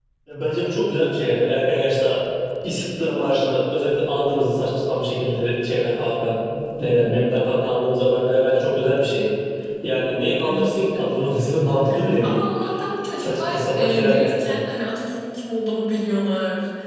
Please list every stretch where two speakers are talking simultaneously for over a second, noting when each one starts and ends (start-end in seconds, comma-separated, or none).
13.2-14.5